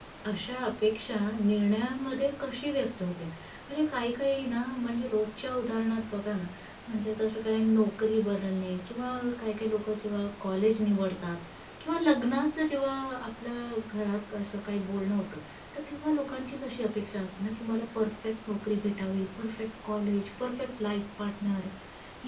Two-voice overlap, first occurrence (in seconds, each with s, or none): none